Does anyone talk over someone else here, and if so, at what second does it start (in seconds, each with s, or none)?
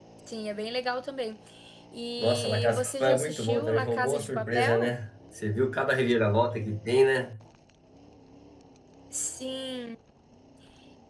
2.2 s